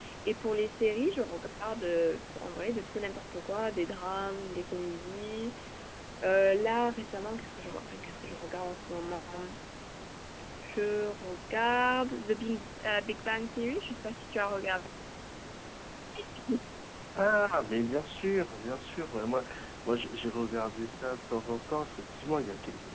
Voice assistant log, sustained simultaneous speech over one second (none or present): none